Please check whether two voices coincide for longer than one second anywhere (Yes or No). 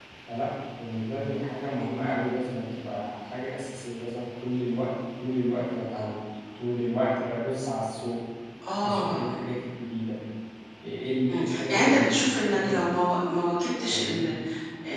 Yes